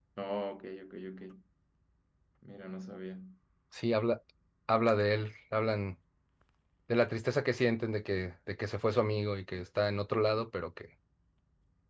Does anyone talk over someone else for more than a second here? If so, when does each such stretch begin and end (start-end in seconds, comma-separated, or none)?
none